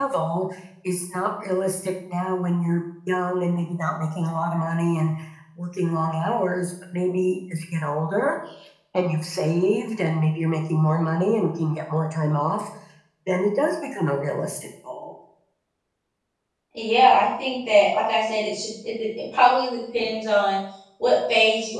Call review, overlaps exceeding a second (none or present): none